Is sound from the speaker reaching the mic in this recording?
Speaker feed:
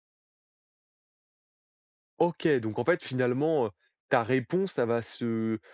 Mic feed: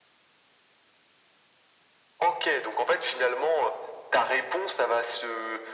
Yes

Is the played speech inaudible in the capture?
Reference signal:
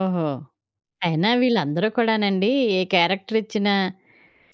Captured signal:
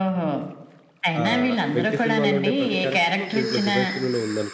No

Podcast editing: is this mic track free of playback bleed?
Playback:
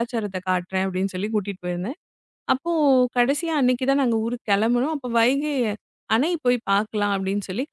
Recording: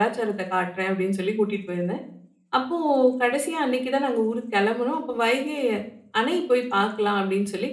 No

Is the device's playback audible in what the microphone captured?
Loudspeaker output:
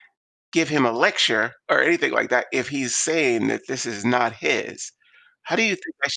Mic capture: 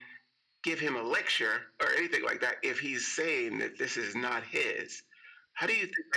Yes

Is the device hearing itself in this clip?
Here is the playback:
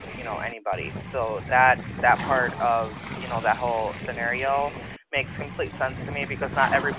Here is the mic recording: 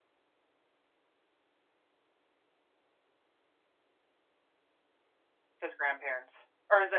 No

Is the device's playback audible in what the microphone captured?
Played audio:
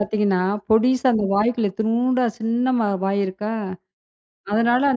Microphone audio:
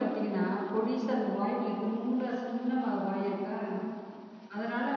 Yes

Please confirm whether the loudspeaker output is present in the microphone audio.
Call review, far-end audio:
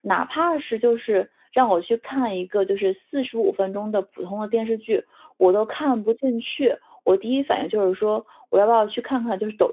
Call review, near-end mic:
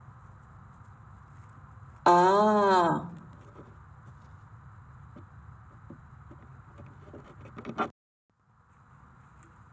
No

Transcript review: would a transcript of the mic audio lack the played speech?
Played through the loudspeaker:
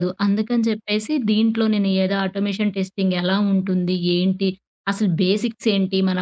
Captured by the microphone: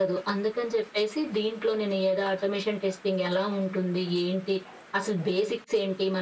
No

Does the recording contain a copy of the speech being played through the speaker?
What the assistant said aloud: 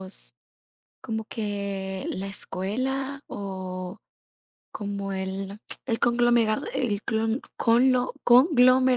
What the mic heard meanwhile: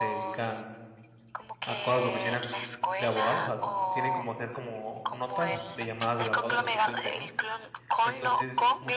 Yes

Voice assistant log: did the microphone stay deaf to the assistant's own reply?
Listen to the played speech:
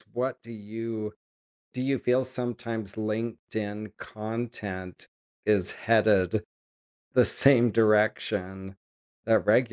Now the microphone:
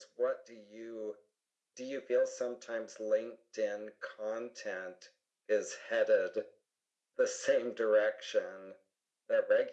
No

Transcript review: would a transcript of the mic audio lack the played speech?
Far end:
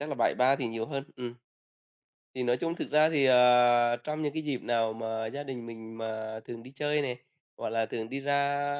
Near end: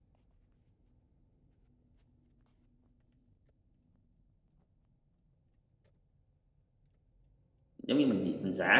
Yes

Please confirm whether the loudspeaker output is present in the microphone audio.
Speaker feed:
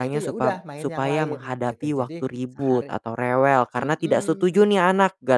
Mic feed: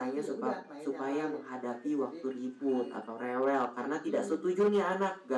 Yes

